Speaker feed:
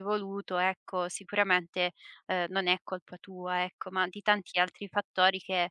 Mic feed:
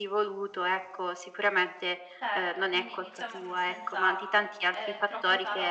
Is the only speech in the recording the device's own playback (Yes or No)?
No